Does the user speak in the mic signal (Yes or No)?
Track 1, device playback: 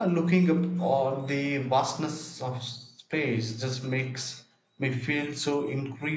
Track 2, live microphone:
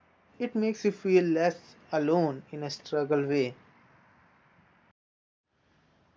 Yes